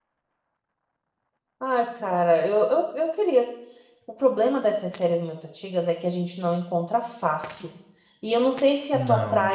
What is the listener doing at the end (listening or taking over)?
listening